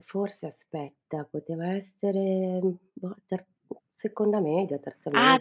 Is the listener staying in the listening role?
No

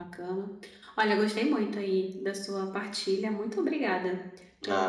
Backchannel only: No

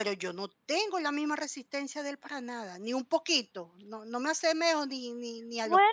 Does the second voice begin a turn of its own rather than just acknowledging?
Yes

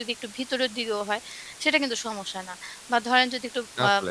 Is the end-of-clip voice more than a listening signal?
No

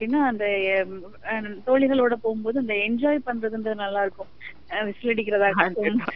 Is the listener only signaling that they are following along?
Yes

